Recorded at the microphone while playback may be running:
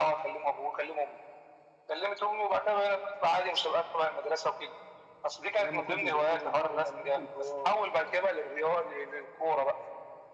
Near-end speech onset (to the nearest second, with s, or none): 6 s